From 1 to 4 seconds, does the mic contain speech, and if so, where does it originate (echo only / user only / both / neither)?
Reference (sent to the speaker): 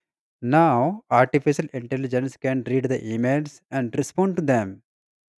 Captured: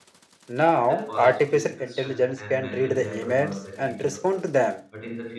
both